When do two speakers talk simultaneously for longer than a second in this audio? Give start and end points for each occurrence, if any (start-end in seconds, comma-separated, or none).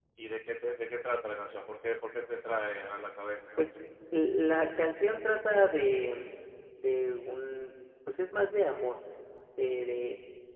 none